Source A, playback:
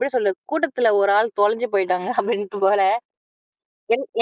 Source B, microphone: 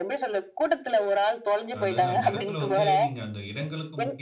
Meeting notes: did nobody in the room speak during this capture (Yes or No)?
No